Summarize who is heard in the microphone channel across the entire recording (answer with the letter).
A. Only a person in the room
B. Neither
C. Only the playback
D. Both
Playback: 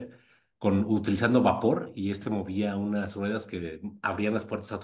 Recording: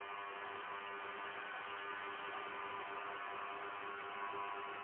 B